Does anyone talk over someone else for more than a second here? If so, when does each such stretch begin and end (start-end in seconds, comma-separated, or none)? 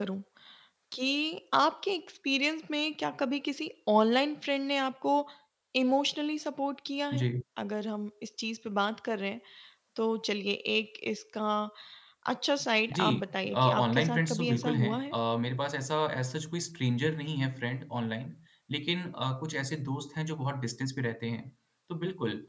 13.5-15.2